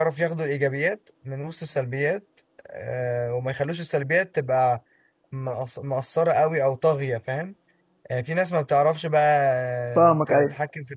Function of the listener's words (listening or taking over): listening